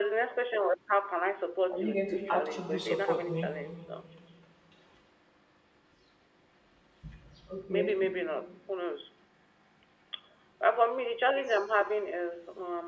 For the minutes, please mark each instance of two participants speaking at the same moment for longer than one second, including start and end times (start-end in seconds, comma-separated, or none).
1.7-3.5